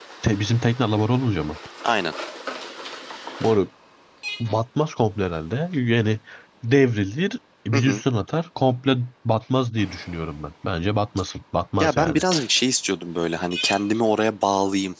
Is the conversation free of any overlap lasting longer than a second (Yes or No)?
Yes